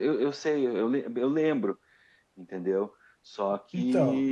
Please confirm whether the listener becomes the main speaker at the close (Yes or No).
No